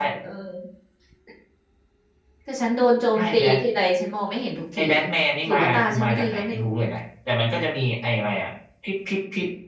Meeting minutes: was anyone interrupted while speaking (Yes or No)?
Yes